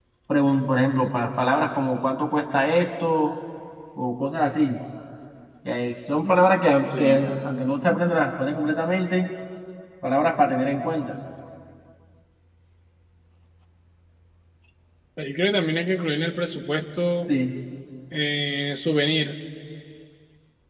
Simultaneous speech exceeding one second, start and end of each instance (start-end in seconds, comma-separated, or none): none